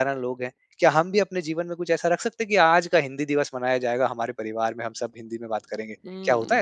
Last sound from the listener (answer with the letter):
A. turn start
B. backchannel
A